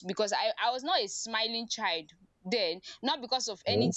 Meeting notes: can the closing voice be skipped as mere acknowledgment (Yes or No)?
Yes